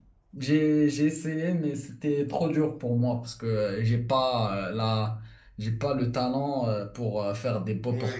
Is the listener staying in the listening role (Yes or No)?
No